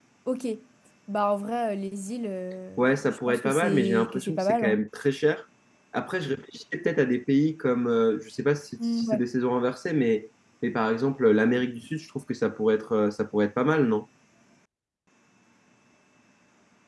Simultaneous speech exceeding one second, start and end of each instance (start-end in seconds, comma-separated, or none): 2.8-4.8